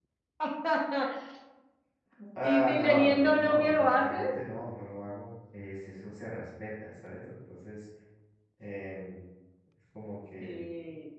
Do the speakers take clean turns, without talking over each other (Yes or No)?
No